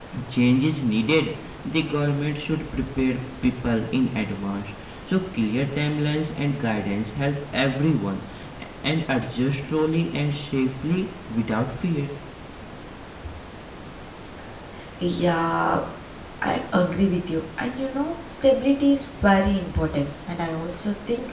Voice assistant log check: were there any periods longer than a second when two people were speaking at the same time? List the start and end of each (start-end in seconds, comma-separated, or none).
none